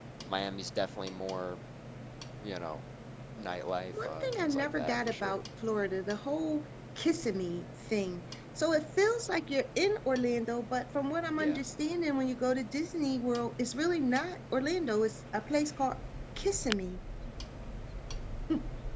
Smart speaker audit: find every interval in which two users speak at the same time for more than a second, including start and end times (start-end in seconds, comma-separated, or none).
4.0-5.3